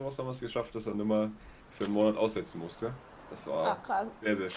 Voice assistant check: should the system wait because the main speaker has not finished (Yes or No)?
No